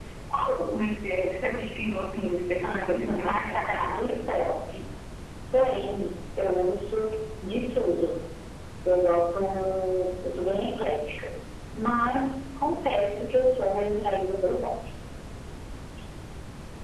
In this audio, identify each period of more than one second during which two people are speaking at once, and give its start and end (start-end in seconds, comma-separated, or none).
2.6-4.2